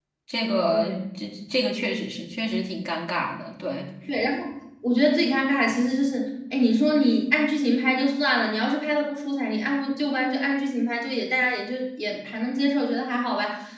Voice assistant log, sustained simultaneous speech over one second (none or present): none